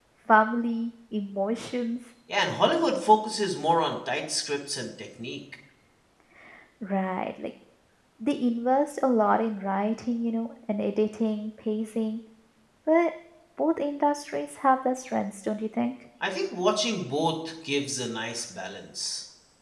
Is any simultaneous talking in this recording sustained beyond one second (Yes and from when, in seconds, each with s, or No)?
No